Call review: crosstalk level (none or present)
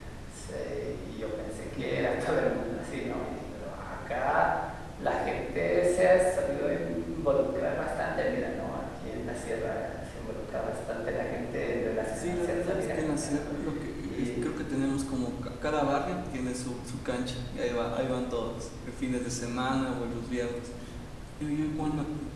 present